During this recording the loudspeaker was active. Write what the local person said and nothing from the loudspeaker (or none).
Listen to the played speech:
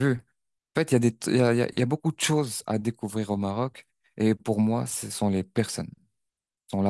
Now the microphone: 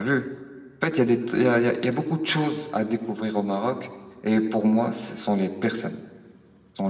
none